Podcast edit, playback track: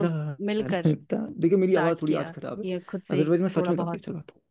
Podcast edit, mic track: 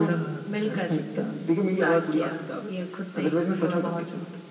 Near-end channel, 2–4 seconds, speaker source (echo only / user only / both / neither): echo only